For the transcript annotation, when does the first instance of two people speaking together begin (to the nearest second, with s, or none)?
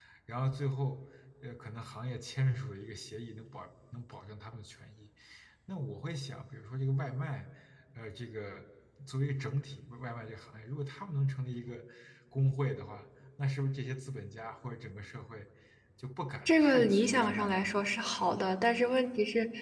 16 s